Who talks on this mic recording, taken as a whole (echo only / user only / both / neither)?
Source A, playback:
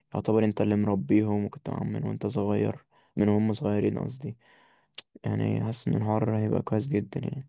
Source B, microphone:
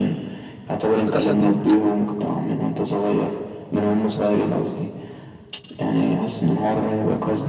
both